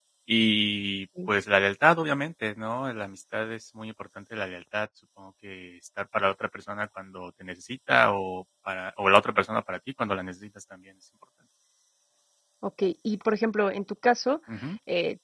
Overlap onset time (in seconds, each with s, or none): none